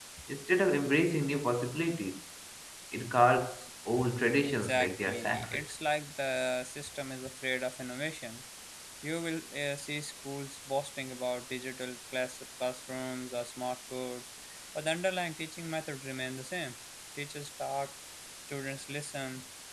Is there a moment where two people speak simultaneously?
Yes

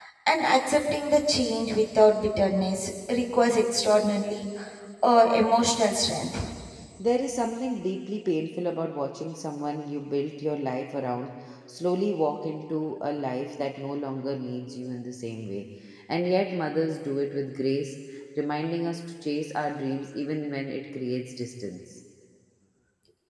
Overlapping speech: No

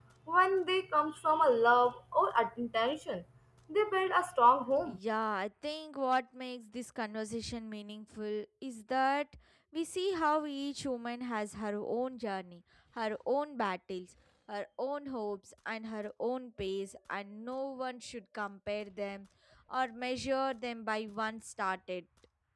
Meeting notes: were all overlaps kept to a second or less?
Yes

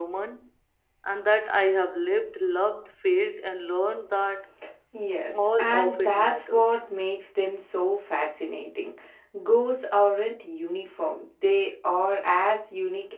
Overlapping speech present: Yes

